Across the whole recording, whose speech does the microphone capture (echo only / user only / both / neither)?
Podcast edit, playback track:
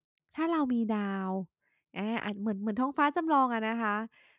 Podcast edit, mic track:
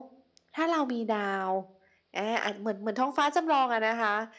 echo only